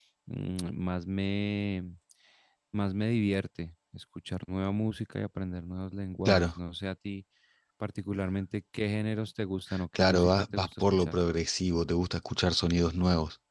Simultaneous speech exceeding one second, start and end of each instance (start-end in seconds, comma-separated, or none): 10.0-11.2